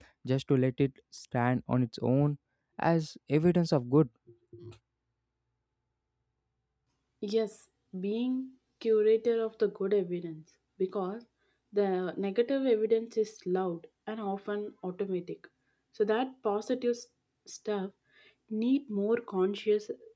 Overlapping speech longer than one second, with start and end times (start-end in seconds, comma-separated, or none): none